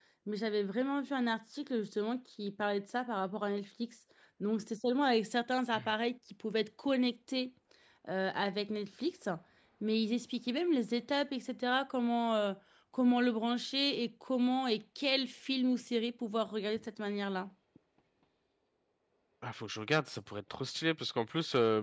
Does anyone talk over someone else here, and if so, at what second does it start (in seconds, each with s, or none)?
none